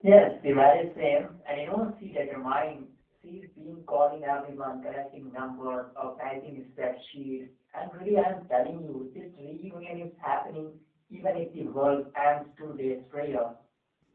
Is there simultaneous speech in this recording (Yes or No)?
No